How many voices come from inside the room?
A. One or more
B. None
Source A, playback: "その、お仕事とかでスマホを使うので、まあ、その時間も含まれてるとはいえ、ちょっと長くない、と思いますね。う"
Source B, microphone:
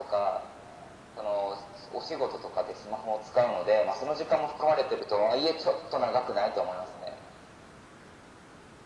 B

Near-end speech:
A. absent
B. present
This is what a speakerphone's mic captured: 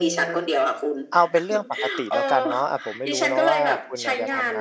B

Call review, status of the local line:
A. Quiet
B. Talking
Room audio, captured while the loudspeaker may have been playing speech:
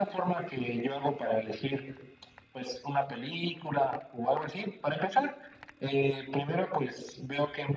A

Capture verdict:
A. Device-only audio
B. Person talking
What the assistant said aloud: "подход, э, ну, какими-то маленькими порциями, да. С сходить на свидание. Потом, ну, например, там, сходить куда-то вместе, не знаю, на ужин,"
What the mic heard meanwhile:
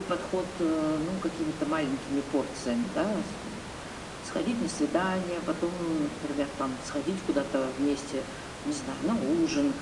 A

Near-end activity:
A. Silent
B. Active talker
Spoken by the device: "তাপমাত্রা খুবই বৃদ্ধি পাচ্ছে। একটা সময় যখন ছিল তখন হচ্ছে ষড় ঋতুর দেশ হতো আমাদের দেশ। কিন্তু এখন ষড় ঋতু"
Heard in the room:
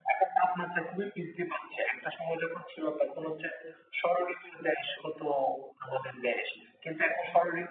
A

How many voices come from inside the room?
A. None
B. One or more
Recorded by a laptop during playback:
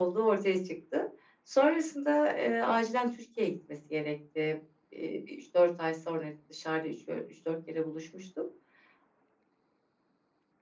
A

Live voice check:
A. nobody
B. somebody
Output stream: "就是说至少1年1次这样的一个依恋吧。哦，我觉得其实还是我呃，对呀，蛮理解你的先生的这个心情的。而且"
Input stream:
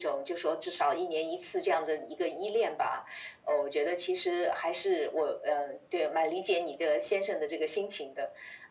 A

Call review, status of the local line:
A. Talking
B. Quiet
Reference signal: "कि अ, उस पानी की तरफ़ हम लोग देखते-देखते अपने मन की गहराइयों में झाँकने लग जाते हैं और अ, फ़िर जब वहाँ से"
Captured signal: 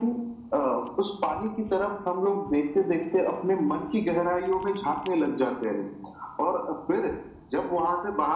B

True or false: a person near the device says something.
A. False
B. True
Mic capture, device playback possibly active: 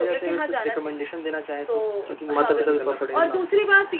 B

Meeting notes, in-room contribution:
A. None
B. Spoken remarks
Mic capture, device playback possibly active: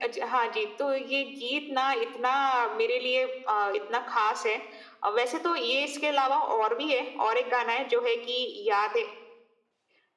A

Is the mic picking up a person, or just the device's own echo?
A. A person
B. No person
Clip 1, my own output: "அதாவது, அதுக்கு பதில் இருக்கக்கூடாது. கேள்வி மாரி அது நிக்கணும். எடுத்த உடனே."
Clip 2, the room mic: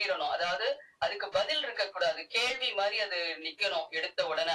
B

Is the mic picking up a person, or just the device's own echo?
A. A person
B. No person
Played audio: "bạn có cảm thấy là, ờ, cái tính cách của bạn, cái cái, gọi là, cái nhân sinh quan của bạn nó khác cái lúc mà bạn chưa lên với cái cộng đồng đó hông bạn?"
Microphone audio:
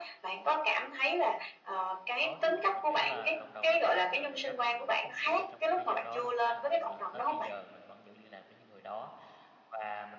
A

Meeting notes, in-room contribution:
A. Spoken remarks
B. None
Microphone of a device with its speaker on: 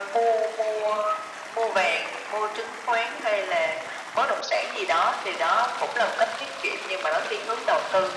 B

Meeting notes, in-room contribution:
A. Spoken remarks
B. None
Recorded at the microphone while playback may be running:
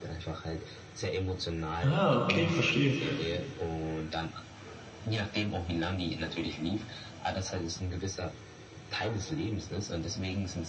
A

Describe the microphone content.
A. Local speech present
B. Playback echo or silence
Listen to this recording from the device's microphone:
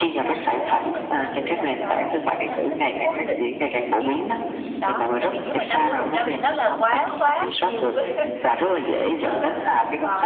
A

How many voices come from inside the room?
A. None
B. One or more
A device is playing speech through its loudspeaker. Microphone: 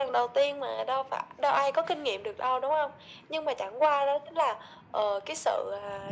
A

